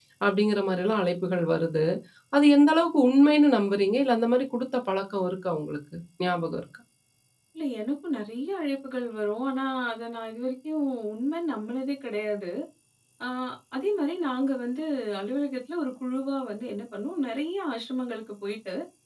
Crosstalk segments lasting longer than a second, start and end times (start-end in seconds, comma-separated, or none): none